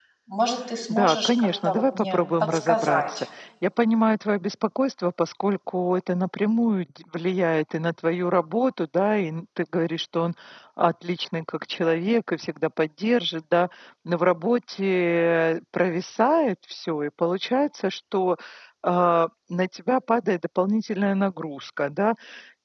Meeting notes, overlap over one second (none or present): present